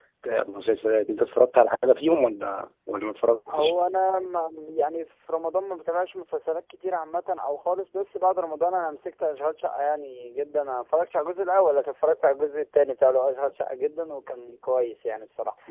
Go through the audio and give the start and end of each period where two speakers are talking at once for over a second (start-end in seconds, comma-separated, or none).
none